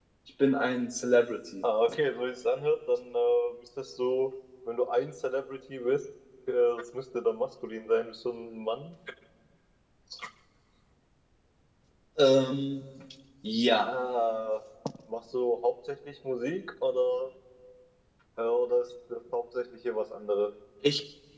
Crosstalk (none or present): none